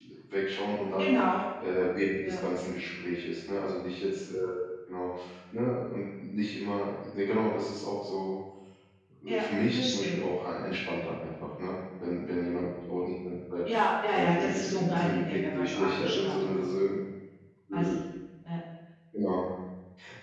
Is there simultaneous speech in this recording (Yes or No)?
Yes